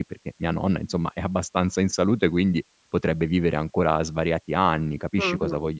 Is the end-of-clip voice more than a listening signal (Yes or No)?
Yes